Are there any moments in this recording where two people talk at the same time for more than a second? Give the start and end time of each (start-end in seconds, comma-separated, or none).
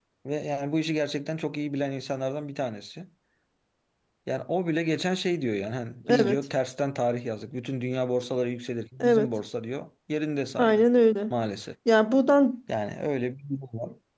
none